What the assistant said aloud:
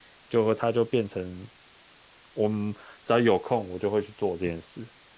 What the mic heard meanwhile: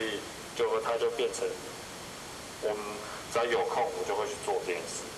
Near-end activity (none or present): none